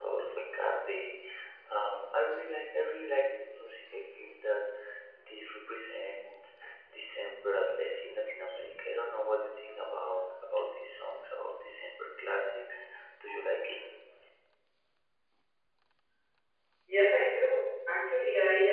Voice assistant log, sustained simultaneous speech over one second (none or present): none